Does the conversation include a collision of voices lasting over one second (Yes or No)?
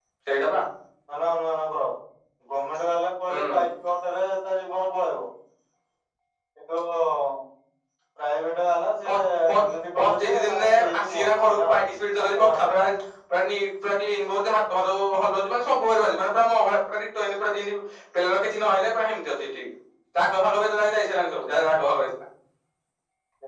Yes